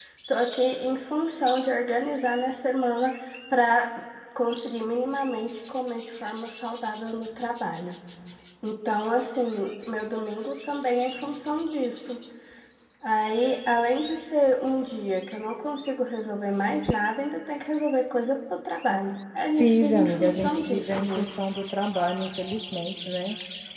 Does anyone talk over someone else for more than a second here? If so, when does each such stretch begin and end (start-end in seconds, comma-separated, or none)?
19.6-21.3